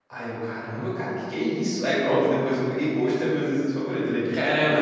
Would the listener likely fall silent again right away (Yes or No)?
No